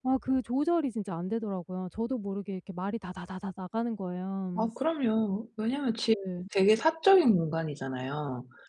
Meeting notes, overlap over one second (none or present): none